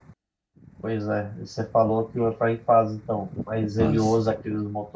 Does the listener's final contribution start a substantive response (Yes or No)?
No